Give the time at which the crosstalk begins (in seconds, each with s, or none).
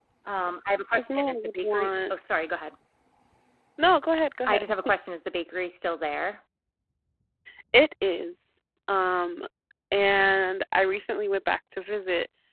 0.9 s